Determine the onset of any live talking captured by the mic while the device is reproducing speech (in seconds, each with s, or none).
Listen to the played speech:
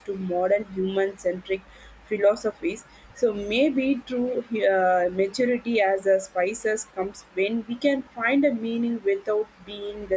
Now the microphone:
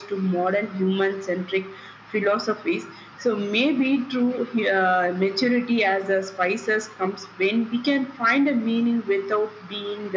none